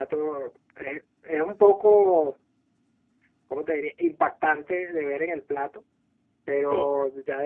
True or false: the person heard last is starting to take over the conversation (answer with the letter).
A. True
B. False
B